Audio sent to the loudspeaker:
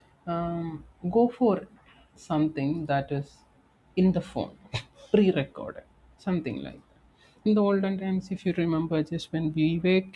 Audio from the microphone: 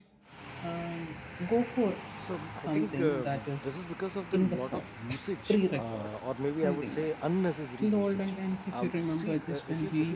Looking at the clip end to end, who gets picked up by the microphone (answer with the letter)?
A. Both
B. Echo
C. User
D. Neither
A